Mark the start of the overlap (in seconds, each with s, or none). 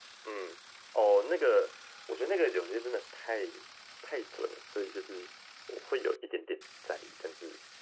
none